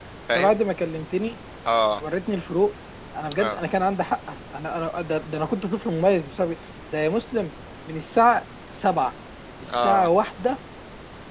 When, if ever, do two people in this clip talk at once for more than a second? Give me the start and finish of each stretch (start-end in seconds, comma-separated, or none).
none